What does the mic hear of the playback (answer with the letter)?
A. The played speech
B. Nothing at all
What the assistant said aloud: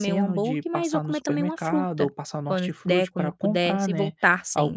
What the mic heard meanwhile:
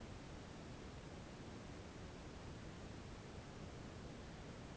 B